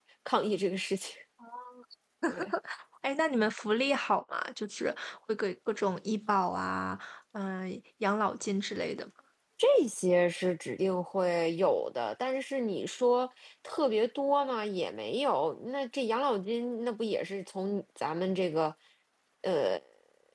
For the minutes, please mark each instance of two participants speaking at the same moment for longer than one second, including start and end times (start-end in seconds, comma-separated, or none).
none